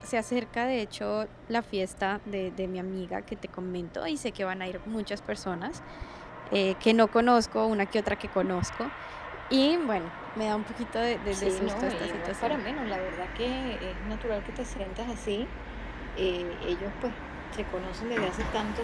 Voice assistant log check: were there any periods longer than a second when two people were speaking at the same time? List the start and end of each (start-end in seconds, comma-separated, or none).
11.3-12.6